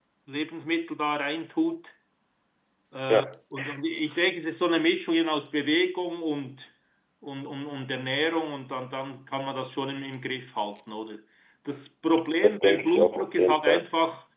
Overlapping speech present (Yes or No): Yes